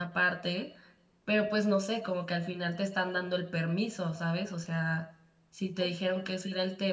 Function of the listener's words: listening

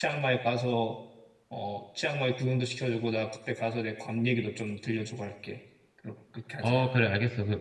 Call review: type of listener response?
taking over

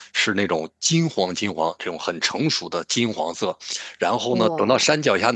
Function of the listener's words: listening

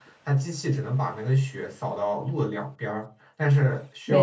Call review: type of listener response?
listening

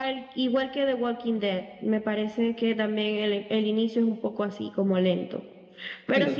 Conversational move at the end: taking over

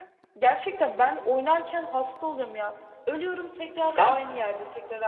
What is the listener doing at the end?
listening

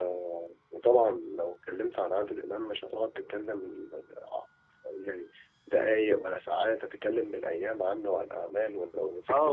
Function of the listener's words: taking over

